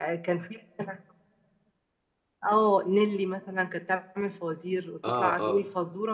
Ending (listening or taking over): listening